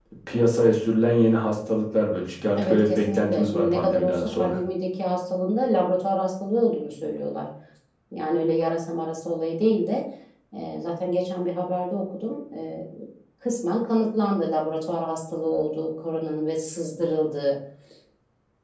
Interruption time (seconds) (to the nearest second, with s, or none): 3 s